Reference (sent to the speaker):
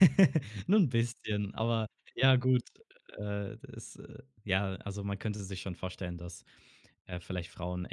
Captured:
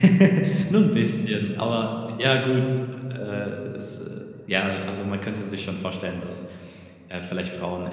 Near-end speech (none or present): none